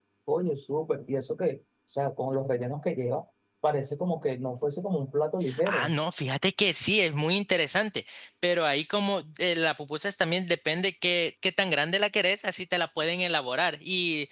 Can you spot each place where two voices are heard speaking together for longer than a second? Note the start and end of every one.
none

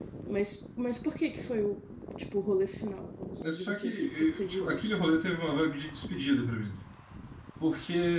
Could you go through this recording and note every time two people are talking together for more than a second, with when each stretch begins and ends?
3.4-5.0

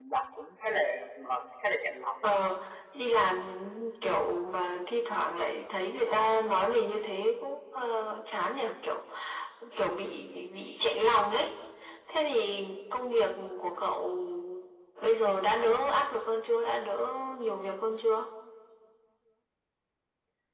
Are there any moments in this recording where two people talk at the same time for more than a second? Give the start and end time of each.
none

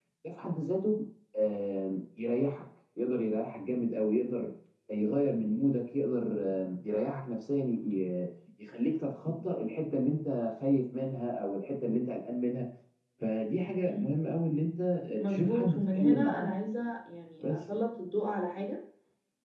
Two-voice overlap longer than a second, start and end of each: 15.3-16.5

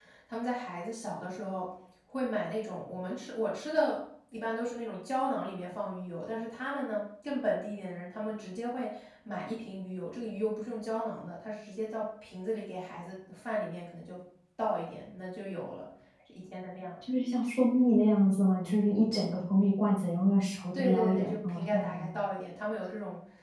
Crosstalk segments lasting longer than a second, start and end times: 20.7-22.0

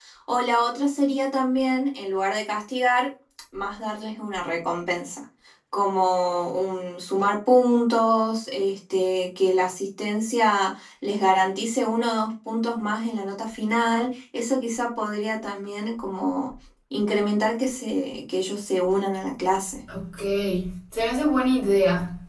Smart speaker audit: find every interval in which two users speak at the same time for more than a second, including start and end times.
none

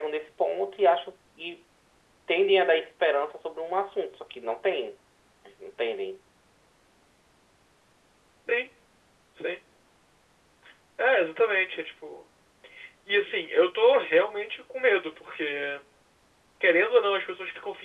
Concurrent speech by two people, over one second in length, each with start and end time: none

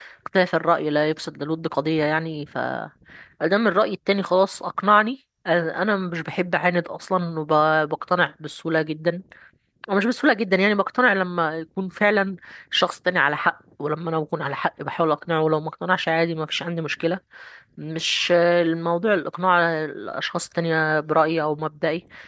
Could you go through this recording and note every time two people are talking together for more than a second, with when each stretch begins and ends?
none

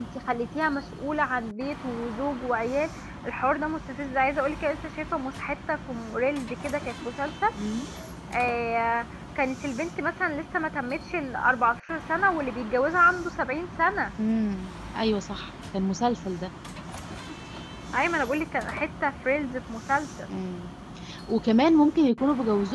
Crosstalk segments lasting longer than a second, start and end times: none

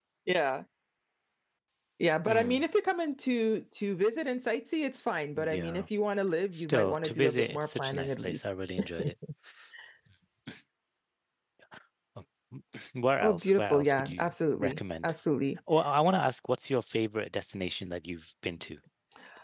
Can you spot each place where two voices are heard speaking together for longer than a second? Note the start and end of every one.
6.5-8.4, 13.2-15.1

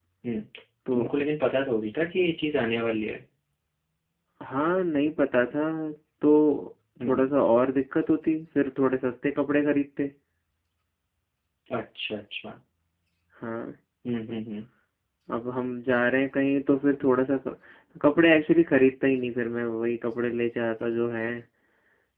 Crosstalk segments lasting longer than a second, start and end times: none

